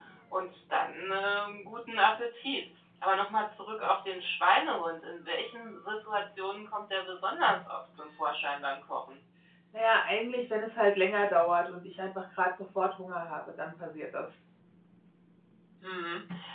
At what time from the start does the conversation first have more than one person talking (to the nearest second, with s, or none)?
none